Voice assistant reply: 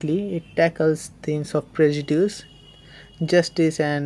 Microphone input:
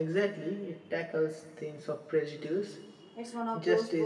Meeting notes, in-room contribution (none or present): present